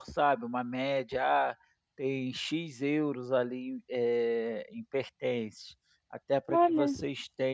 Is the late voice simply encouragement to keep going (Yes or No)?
Yes